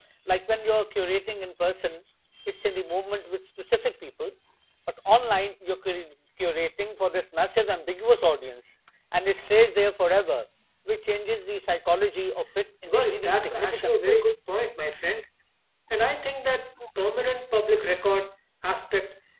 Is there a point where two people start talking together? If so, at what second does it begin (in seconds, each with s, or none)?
12.8 s